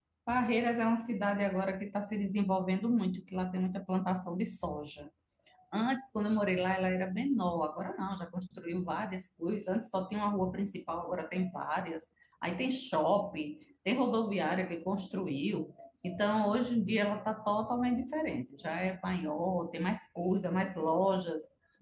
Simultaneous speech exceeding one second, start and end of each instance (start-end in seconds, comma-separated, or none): none